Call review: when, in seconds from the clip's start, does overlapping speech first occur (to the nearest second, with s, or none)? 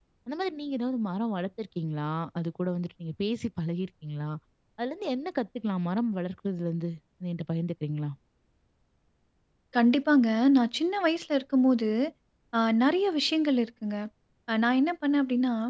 none